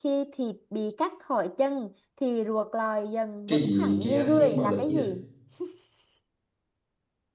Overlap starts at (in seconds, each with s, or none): 3.5 s